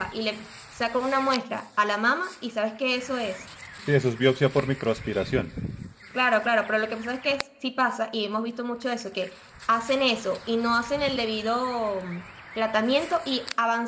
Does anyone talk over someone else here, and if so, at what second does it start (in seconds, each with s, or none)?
none